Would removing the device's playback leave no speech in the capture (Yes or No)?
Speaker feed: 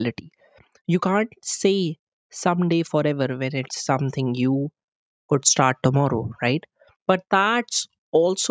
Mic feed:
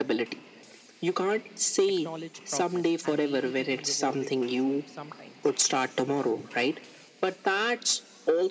No